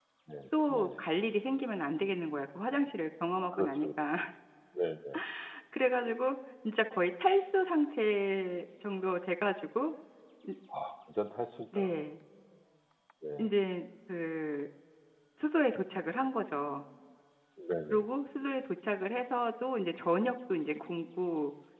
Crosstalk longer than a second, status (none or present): none